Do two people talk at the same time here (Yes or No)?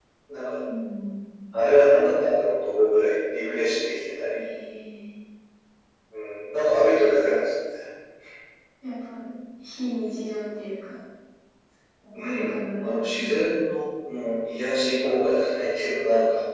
Yes